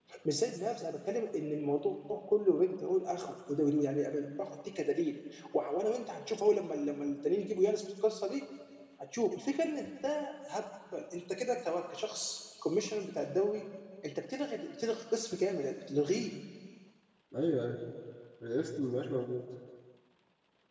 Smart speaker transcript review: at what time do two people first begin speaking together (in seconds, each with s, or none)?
none